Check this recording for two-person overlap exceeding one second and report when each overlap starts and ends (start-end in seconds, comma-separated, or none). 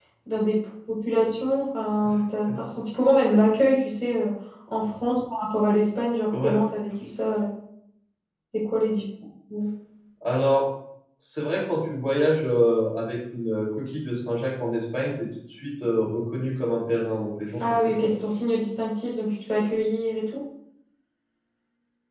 none